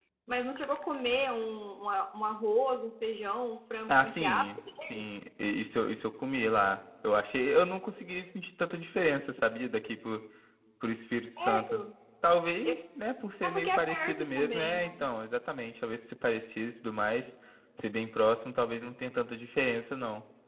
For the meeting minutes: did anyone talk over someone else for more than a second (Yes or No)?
Yes